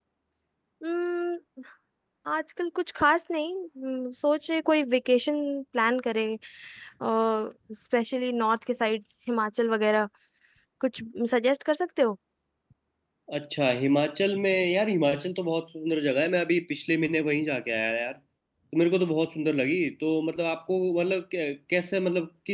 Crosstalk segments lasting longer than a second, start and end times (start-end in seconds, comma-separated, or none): none